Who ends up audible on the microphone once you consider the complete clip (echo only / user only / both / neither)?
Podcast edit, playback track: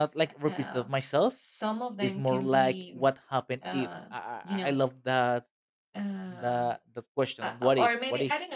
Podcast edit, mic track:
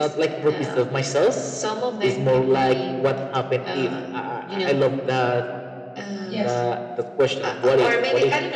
both